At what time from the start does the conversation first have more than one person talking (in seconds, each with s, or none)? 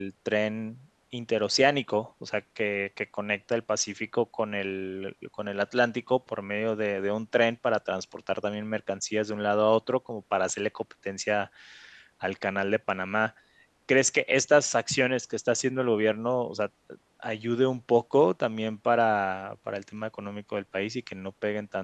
none